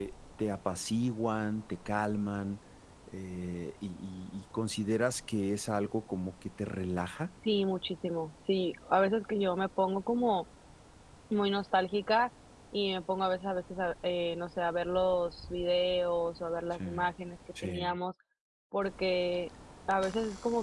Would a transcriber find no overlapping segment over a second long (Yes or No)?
Yes